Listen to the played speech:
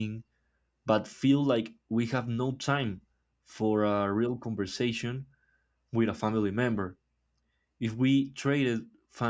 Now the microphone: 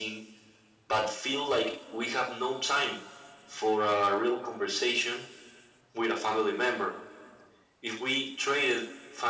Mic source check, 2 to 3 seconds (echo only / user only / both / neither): echo only